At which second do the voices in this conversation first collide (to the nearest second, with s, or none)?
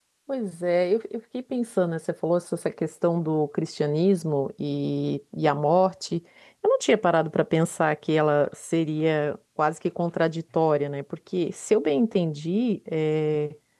none